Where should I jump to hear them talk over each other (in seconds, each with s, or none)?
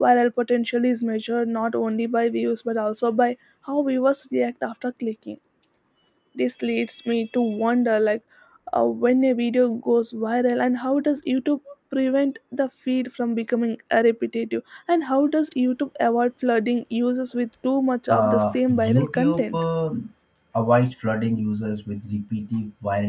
18.1 s